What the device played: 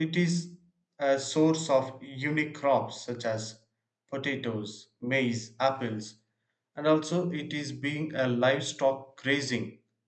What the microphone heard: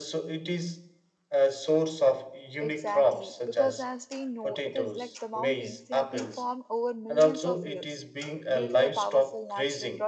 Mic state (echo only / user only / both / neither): both